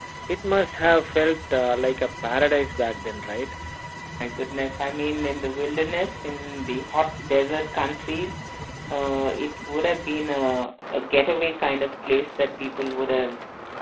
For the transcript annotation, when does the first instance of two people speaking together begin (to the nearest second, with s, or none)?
none